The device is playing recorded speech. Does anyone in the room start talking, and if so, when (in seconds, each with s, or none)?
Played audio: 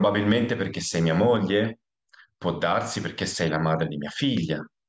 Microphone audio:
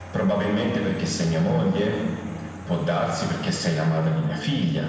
none